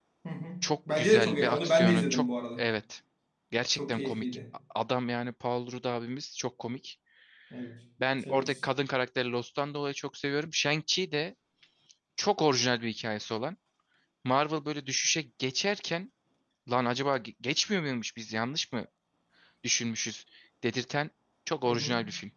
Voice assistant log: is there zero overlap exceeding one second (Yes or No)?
No